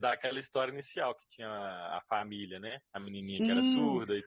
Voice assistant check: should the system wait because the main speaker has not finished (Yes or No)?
No